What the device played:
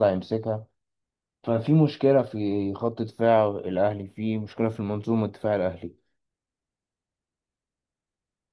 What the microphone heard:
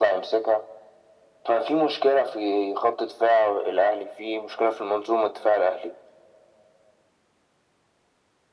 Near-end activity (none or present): none